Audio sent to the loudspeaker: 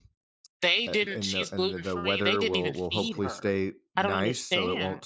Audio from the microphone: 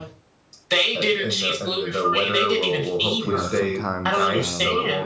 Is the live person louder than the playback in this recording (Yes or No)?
No